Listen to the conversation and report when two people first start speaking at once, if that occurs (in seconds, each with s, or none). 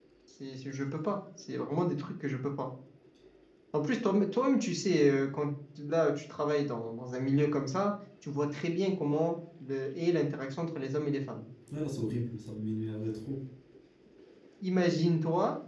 none